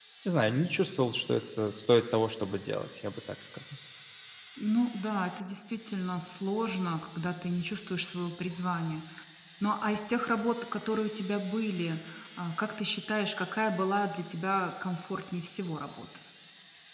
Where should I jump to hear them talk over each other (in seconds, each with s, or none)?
none